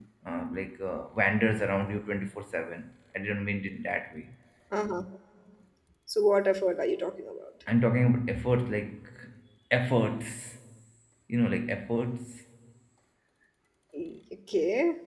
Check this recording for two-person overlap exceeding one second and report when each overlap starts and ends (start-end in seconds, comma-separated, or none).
none